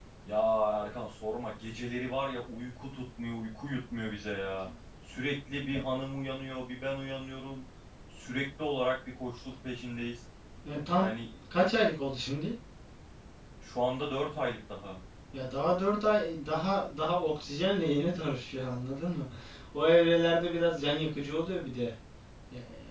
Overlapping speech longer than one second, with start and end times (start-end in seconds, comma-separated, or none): none